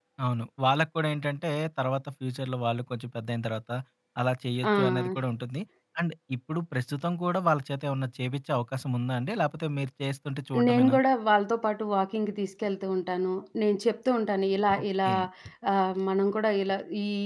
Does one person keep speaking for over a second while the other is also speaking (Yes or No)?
No